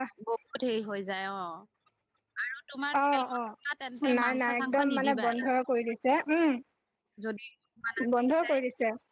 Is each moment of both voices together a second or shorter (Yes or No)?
No